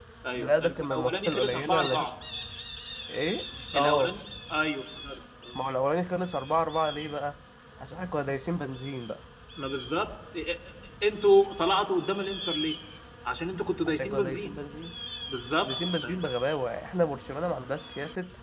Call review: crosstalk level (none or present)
present